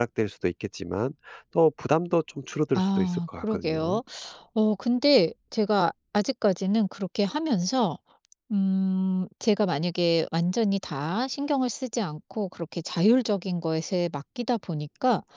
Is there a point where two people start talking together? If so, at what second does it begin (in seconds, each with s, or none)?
2.8 s